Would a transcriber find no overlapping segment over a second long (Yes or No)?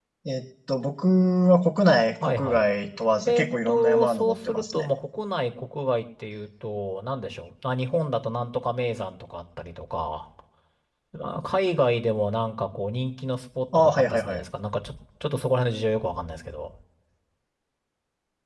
No